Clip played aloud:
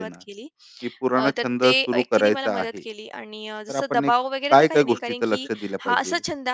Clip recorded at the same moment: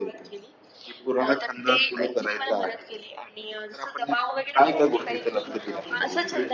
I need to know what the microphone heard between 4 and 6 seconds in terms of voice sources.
both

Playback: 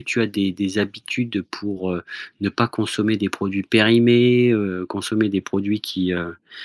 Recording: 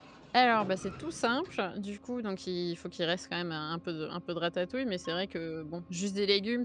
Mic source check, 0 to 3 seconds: user only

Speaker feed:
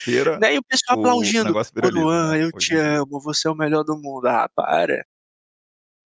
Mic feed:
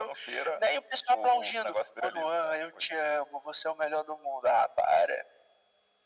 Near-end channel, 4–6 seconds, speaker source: echo only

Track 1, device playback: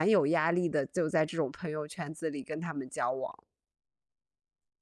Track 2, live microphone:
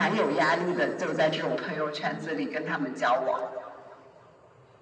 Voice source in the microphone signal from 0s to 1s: echo only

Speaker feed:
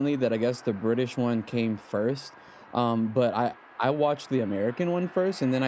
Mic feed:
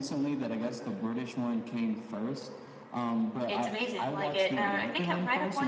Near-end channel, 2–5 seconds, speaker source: both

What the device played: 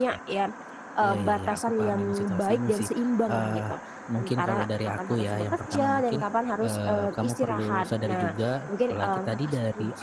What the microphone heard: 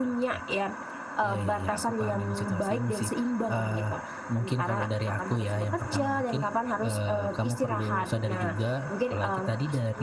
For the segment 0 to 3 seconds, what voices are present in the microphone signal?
echo only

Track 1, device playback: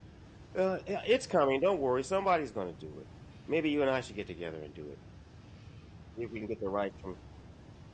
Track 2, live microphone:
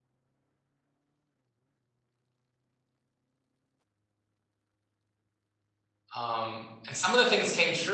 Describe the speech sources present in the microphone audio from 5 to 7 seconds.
user only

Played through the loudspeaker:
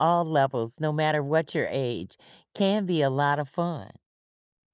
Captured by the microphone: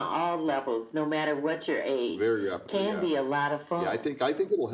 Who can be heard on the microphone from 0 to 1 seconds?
echo only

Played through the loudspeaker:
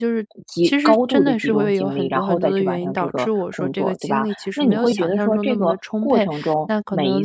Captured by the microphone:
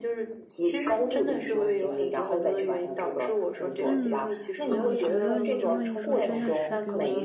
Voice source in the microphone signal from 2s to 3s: echo only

